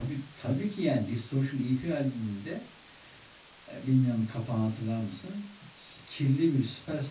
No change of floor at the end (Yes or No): Yes